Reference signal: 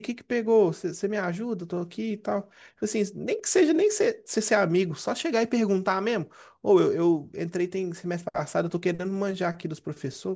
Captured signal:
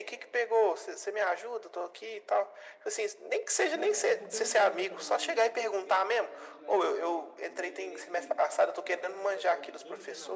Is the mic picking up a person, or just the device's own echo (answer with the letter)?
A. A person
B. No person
A